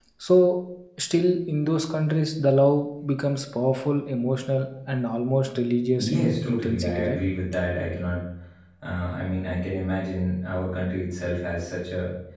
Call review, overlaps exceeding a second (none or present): present